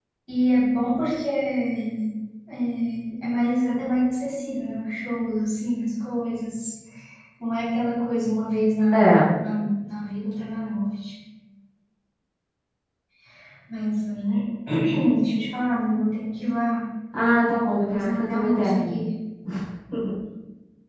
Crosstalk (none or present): present